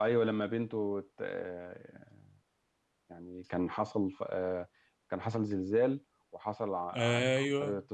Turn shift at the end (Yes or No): No